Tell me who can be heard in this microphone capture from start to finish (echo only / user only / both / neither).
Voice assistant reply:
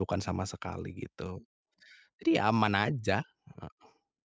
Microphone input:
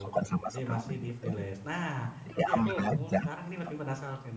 both